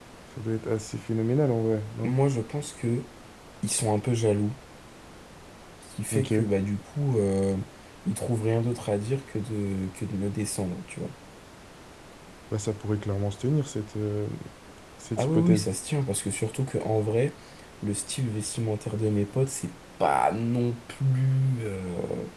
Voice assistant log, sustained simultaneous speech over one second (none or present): none